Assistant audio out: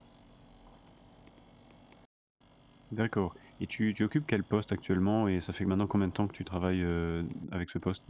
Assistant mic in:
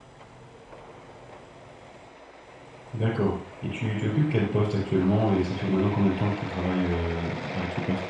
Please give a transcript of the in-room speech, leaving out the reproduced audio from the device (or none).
none